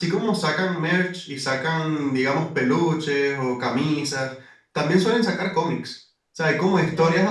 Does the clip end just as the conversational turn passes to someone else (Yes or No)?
No